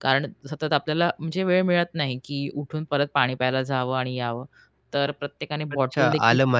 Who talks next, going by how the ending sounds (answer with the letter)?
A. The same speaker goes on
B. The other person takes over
B